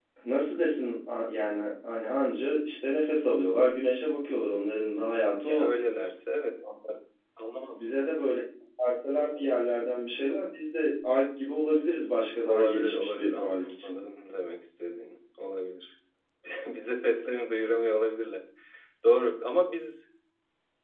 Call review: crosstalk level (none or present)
present